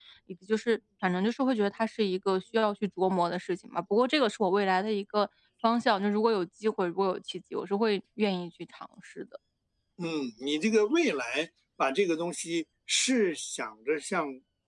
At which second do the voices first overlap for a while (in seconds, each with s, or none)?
none